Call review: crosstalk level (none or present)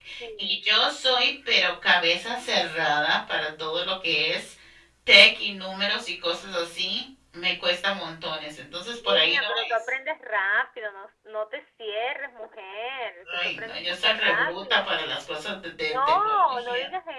present